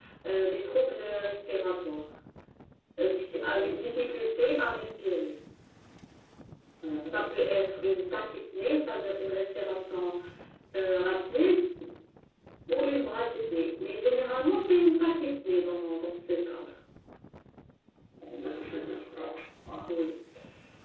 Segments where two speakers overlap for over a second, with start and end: none

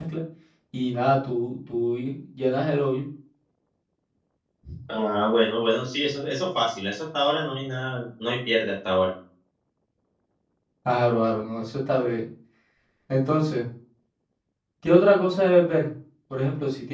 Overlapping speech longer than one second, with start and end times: none

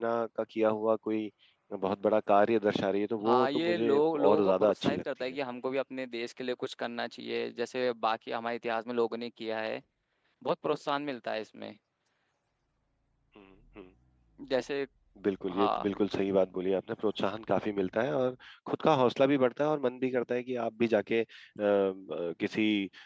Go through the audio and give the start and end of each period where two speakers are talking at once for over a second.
3.2-5.4

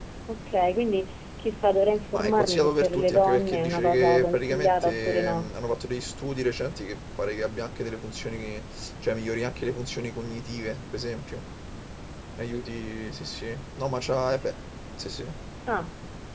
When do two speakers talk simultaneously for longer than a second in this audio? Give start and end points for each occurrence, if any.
2.1-5.5

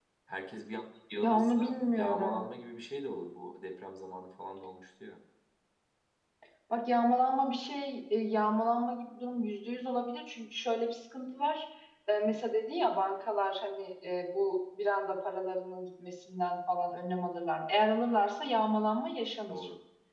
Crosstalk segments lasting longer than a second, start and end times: 1.2-2.4

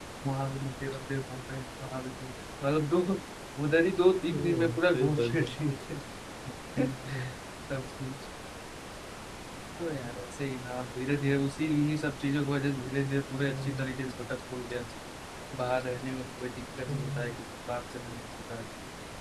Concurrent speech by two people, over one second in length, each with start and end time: 4.3-5.6

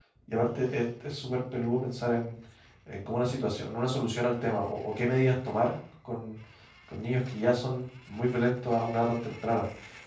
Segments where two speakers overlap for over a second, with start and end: none

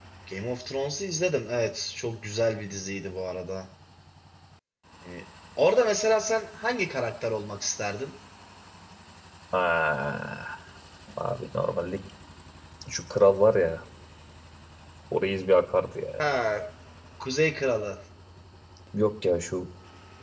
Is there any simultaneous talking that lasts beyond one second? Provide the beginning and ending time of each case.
none

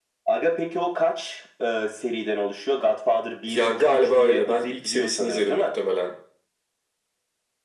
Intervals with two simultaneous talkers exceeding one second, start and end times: 3.5-5.8

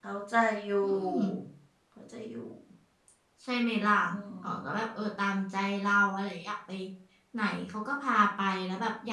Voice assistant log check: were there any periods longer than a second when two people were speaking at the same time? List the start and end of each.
none

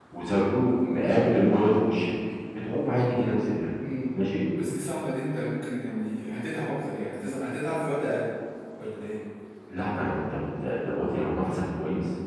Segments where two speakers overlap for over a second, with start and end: none

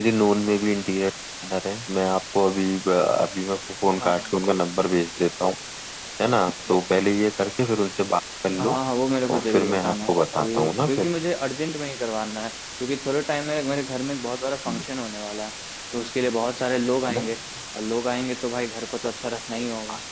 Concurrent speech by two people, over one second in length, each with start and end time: 9.3-11.1

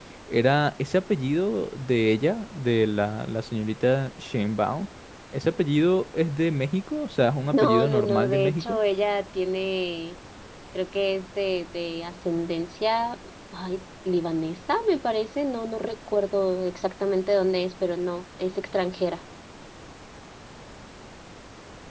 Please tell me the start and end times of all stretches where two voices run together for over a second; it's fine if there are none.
7.5-8.8

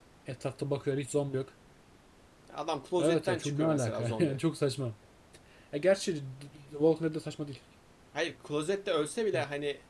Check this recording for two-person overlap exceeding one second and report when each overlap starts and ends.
3.0-4.4

